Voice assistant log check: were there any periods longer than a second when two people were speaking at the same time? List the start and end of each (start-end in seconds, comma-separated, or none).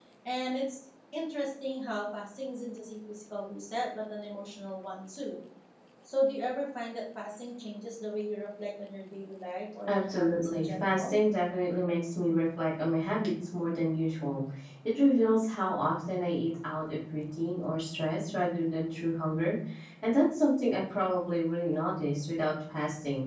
9.9-11.2